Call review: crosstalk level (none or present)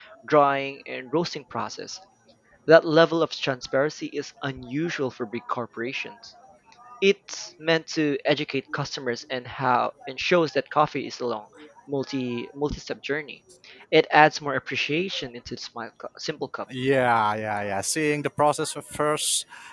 none